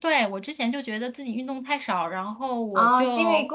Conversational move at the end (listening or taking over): taking over